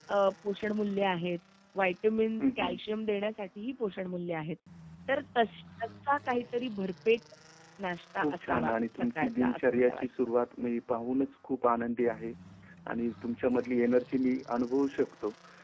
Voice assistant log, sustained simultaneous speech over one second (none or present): present